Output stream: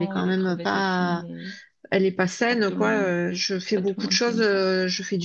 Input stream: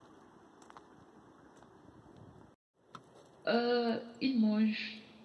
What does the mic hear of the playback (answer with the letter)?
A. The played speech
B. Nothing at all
B